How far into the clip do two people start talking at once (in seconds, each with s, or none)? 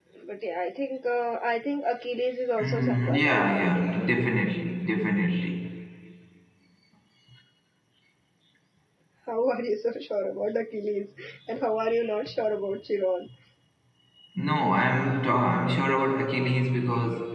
2.6 s